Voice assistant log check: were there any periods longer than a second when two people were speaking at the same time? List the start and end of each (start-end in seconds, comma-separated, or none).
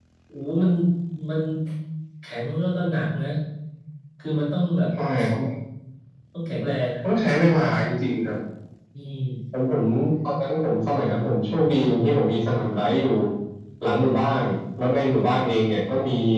none